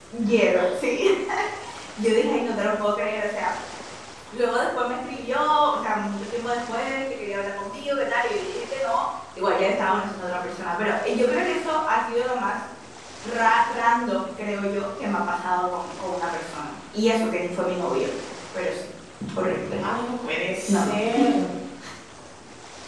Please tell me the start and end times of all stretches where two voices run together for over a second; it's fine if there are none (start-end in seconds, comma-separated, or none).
none